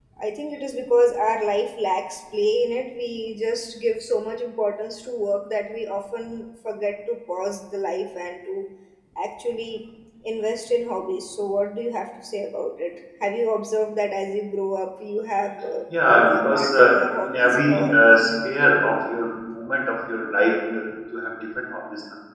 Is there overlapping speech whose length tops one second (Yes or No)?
Yes